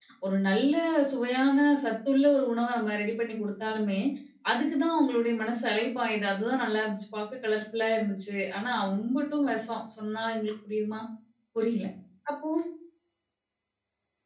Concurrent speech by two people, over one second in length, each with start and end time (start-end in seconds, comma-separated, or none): none